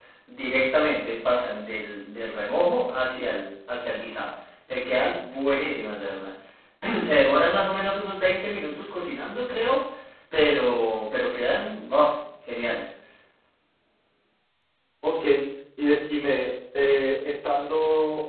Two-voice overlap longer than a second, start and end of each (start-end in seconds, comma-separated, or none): none